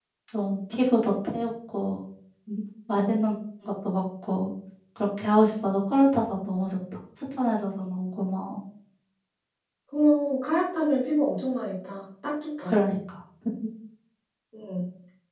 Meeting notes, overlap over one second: none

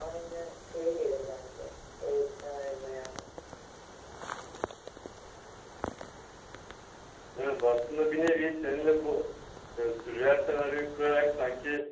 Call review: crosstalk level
none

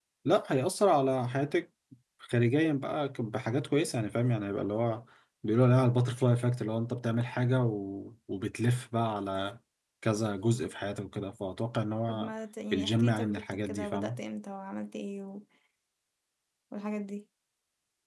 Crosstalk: present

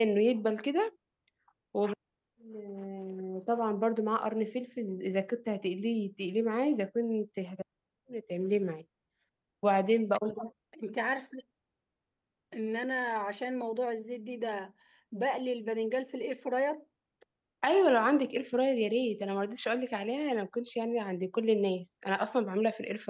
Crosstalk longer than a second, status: none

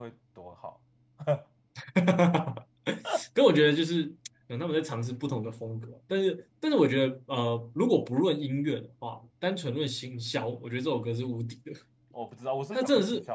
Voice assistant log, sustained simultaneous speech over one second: none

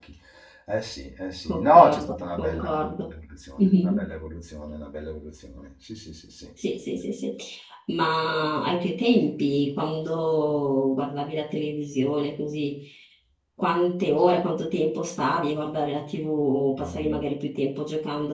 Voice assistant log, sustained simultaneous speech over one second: present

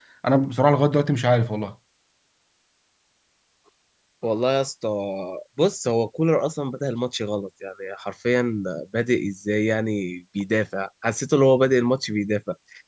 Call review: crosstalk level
none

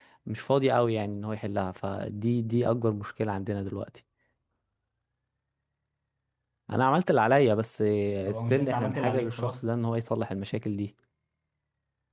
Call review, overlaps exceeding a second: present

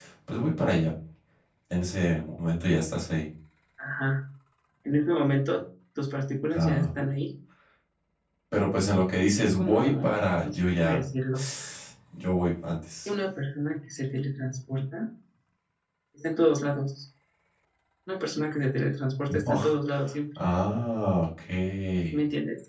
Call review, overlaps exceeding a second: present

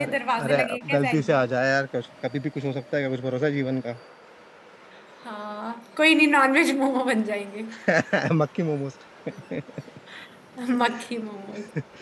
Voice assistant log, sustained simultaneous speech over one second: present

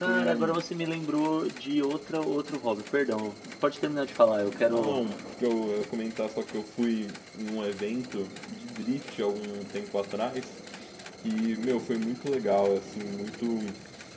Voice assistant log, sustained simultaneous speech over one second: none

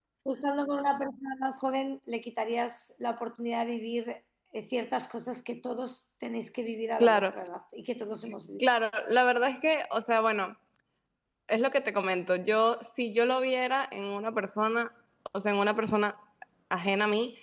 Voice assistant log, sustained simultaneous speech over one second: none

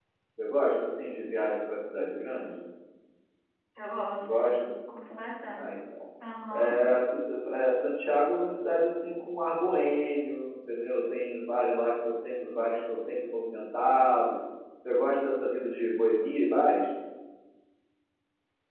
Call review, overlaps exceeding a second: none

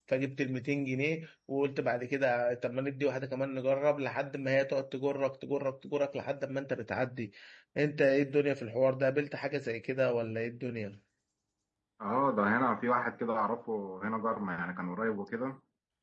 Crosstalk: none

